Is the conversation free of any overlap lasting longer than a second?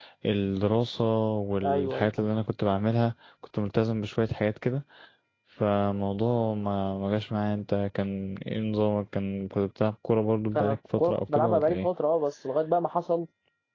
No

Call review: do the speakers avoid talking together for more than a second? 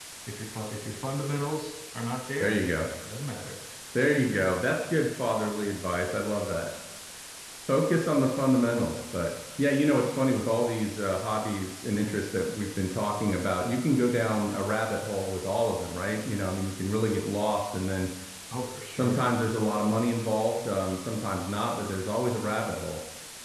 Yes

